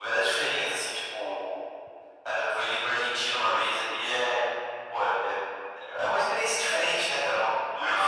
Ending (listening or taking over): listening